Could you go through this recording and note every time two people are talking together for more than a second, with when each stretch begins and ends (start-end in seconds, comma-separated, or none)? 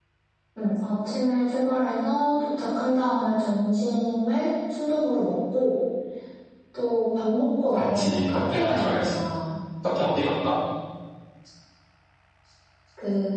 7.8-9.2